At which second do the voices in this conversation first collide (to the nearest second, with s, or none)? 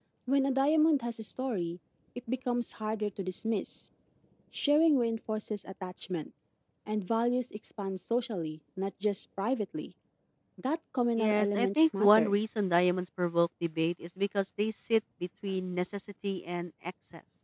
11 s